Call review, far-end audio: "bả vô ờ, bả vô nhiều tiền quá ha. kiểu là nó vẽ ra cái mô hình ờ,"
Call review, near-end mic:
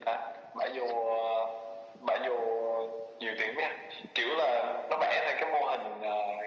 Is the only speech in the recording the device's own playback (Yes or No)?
Yes